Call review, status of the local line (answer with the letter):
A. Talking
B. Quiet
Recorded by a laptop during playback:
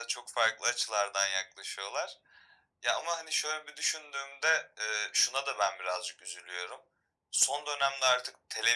B